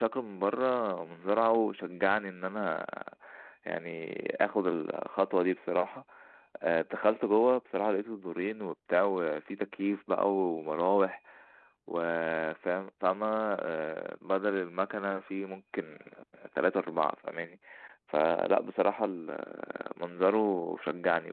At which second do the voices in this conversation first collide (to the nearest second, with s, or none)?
none